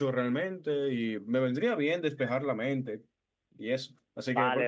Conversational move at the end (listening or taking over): taking over